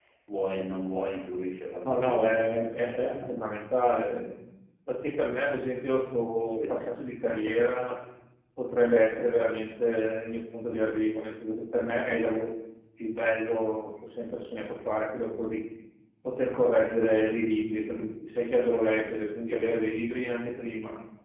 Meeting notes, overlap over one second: present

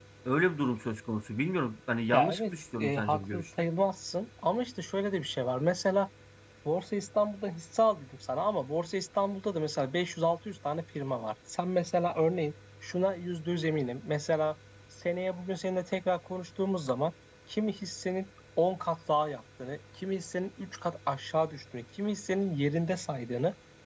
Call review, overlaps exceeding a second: present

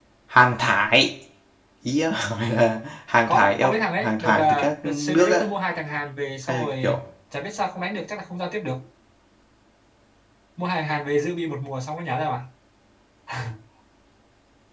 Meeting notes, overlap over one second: present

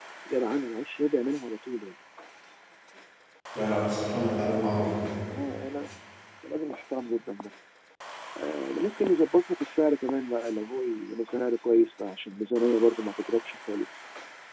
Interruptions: none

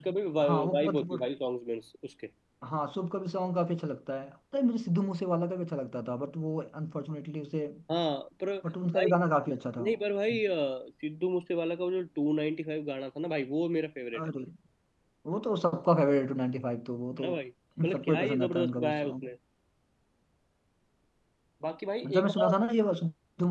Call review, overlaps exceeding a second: present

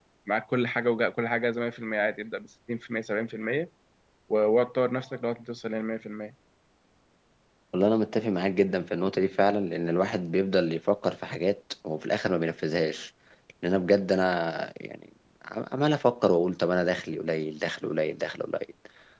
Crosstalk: none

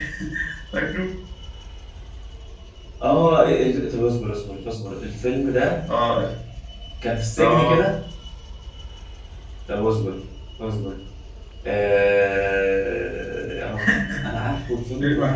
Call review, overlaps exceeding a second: none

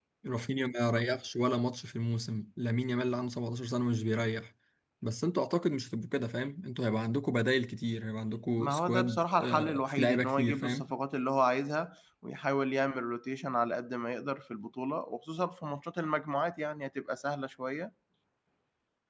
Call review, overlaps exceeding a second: present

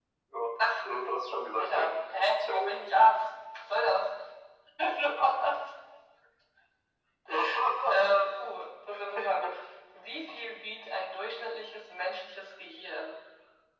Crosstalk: present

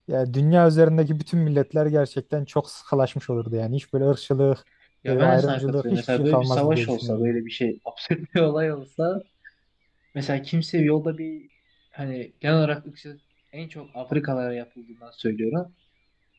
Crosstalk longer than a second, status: present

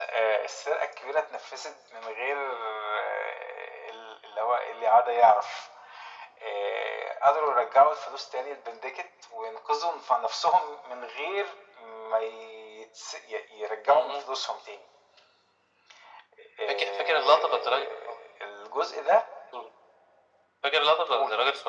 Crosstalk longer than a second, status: present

